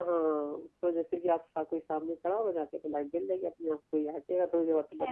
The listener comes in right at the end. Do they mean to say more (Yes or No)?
Yes